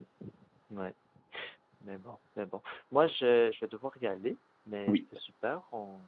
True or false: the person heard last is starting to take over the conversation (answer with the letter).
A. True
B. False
B